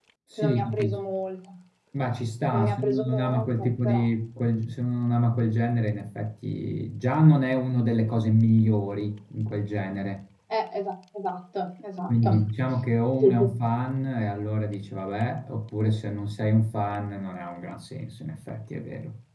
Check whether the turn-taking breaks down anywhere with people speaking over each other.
Yes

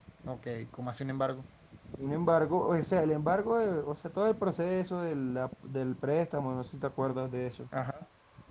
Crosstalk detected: No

